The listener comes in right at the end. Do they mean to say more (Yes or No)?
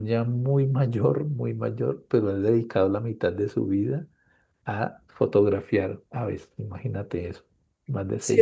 Yes